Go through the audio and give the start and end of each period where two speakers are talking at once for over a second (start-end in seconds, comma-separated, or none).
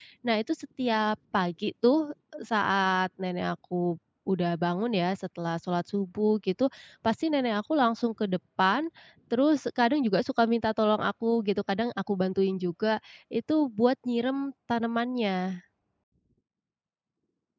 none